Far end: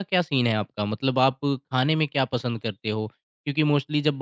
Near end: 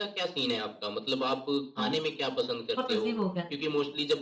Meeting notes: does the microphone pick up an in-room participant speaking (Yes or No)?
Yes